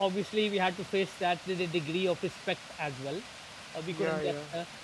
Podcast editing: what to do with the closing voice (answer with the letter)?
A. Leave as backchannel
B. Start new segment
A